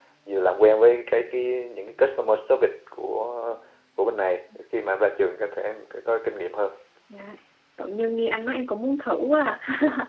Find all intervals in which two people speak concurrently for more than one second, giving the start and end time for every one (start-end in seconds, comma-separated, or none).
none